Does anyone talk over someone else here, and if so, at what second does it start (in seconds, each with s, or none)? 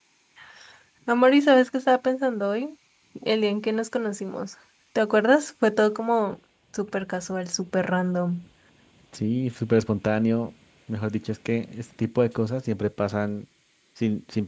none